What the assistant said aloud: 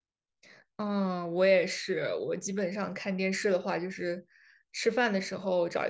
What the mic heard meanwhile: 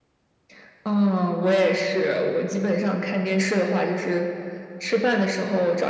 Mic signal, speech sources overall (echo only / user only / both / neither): echo only